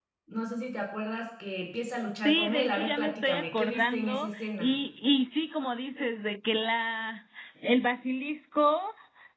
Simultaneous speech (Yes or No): Yes